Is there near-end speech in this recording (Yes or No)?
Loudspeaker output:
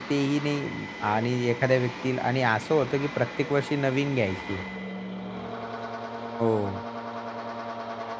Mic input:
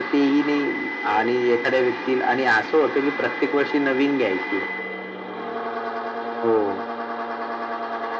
No